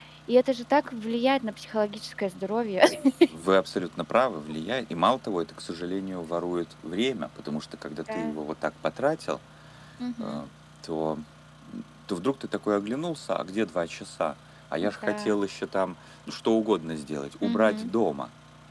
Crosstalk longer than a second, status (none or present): none